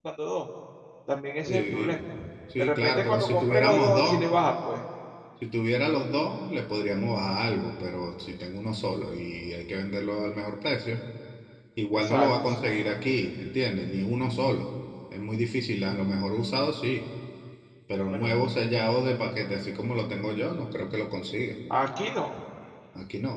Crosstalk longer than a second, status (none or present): present